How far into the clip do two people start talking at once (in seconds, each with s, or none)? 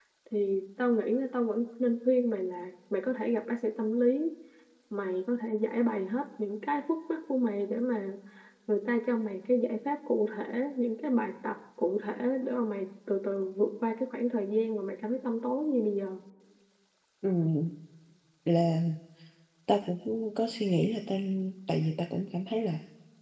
none